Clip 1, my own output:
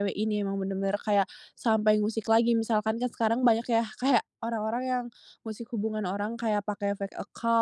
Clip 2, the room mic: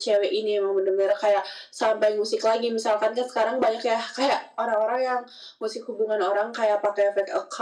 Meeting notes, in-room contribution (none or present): none